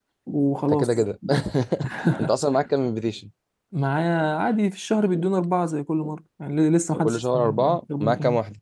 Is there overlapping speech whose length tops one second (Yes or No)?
Yes